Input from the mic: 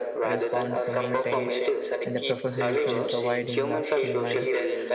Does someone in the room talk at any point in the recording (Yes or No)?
Yes